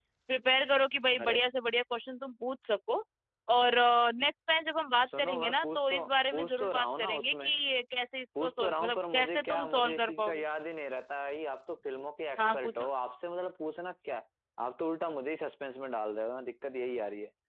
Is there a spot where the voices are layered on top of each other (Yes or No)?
Yes